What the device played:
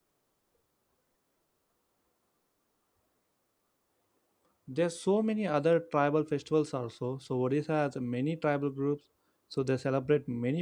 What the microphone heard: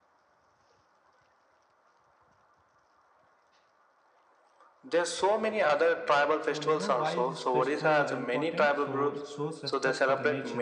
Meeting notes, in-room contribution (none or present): present